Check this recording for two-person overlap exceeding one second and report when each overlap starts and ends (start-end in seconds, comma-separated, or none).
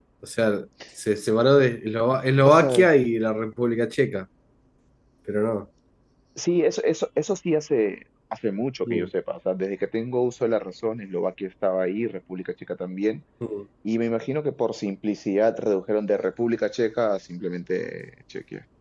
none